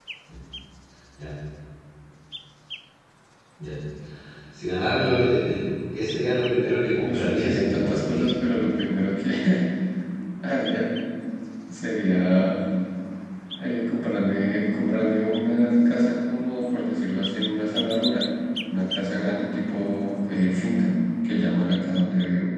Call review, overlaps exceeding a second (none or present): present